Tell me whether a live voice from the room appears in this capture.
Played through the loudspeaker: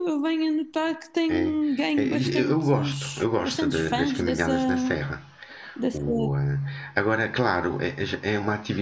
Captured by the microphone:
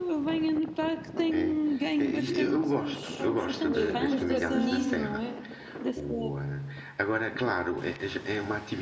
Yes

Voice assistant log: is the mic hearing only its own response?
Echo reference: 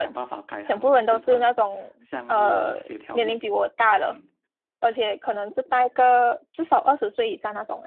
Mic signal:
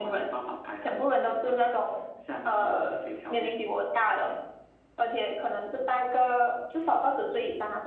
Yes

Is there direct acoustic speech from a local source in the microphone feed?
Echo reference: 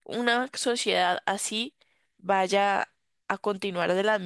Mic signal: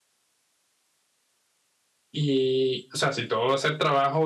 Yes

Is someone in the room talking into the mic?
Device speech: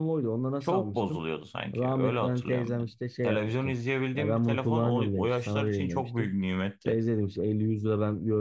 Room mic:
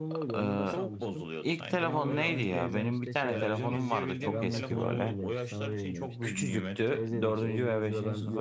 Yes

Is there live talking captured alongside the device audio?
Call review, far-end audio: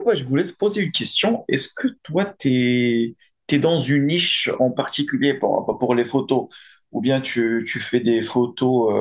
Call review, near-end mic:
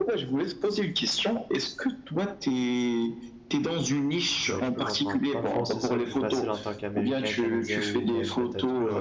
Yes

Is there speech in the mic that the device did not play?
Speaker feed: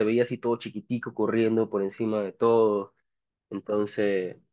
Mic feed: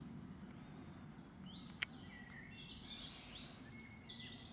No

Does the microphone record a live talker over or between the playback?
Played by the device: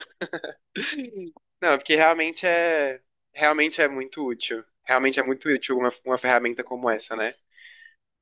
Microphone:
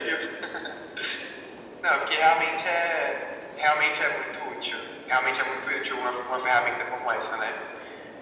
No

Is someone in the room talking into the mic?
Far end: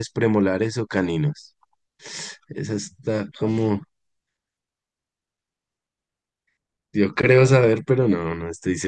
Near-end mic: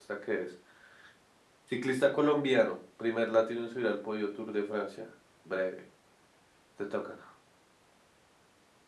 Yes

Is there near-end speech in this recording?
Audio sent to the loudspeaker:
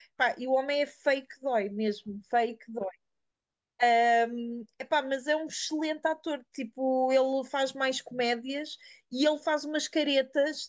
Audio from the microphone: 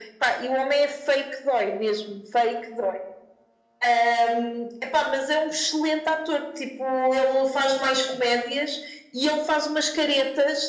No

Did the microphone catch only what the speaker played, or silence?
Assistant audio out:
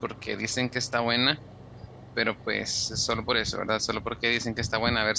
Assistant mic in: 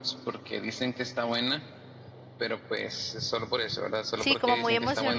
No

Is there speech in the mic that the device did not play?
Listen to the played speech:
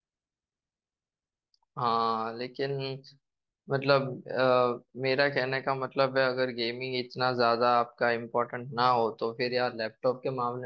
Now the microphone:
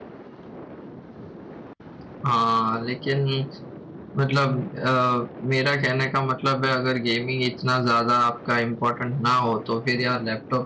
No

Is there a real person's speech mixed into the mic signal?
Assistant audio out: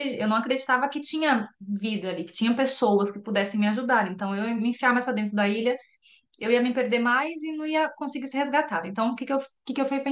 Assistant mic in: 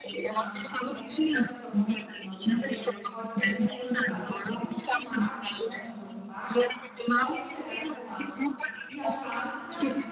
Yes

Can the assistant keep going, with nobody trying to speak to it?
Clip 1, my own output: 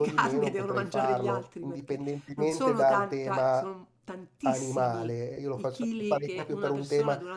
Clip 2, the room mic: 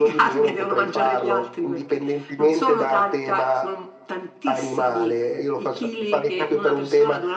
Yes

